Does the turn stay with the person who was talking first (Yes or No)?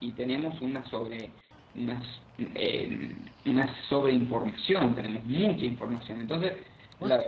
Yes